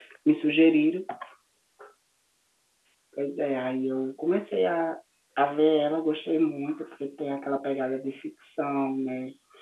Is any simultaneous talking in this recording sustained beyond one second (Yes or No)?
No